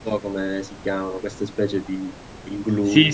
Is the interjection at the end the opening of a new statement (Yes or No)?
Yes